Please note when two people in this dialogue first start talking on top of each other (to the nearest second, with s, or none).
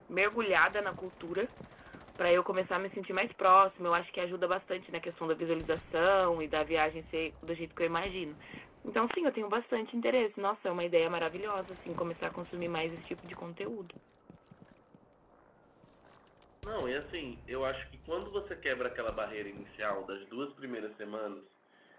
none